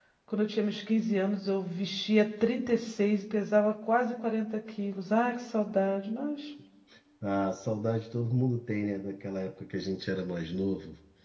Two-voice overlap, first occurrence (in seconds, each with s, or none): none